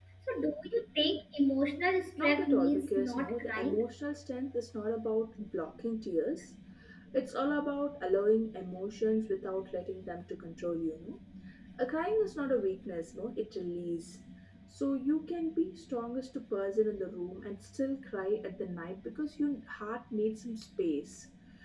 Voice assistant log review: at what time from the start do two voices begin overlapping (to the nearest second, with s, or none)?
2 s